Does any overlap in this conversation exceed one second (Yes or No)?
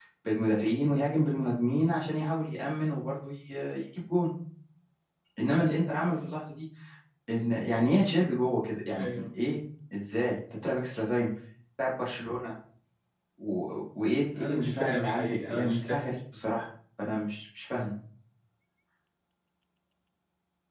Yes